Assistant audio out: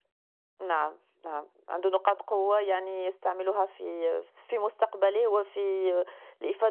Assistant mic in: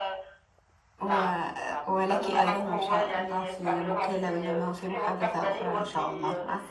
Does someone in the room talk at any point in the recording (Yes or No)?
Yes